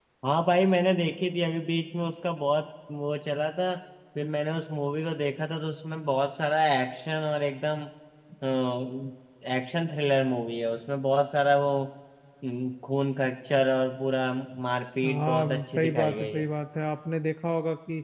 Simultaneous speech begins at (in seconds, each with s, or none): 15.0 s